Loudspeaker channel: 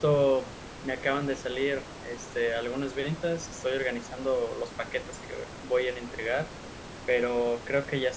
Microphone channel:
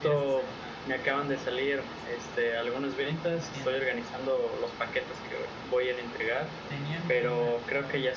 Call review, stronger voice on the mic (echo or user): echo